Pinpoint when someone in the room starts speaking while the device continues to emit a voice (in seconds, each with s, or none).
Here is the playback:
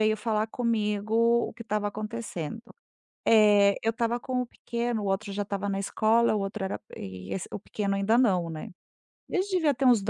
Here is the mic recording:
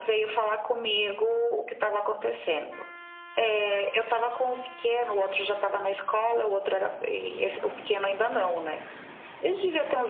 none